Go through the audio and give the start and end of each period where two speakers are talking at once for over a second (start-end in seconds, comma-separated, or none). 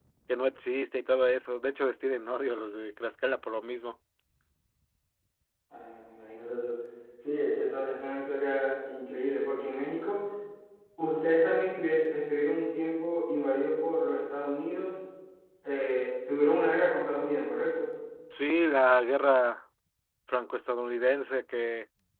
none